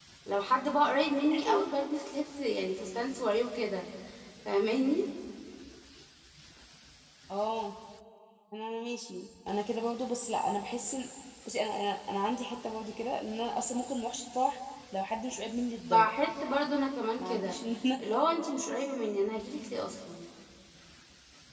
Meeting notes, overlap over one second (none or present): none